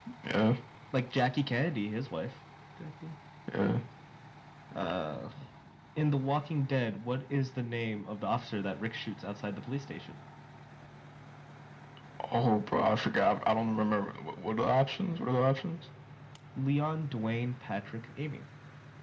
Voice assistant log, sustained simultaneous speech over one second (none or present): none